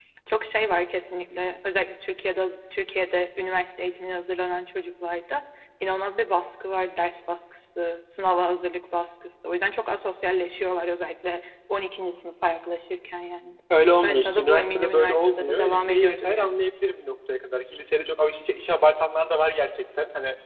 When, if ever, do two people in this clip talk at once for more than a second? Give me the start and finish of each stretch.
14.0-16.6

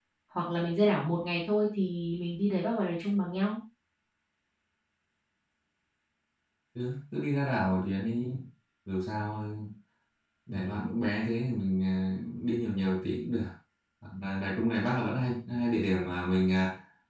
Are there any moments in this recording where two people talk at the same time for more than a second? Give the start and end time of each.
none

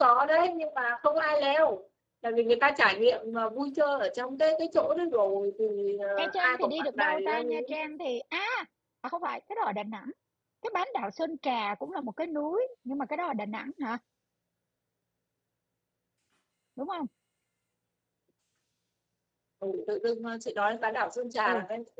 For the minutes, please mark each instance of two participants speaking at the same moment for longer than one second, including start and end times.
6.2-7.6

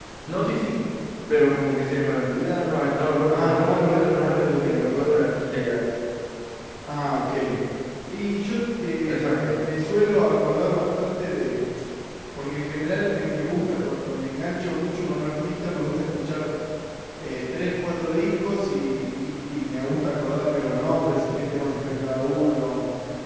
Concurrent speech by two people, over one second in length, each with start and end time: 3.3-5.0

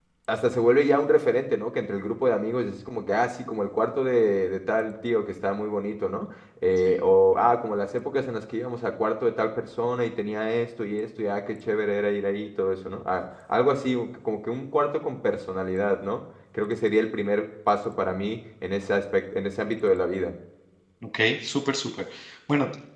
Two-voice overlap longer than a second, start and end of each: none

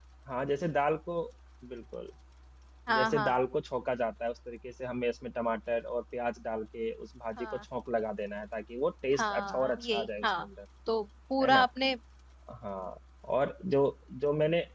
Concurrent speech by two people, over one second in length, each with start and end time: 9.2-10.4

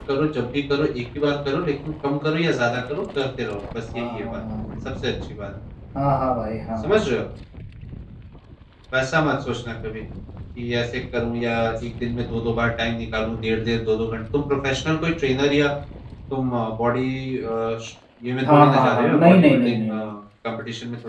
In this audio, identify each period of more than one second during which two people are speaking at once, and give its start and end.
18.5-20.1

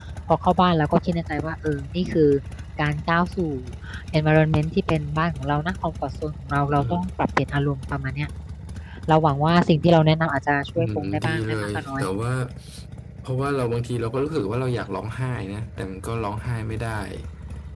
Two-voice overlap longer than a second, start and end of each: 10.8-12.0

